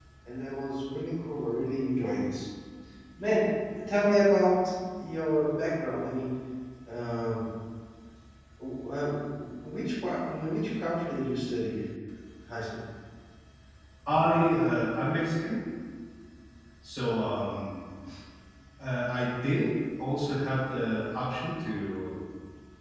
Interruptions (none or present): none